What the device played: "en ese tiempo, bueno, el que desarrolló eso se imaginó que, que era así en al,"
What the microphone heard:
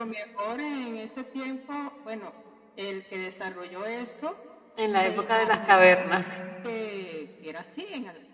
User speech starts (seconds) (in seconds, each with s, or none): 4.8 s